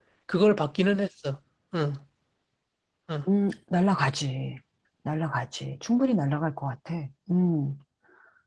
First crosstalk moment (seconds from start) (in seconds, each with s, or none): none